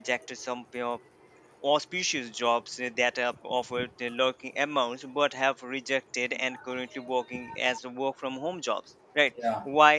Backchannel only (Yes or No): Yes